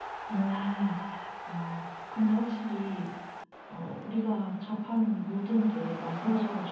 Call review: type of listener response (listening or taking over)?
listening